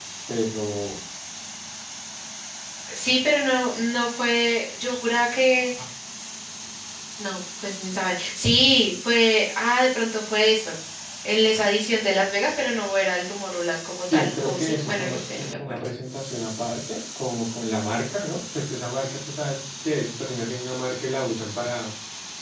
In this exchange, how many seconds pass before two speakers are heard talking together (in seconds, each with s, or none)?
14.1 s